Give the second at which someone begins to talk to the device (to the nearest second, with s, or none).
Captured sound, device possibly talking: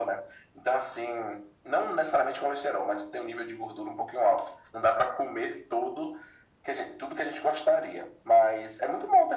none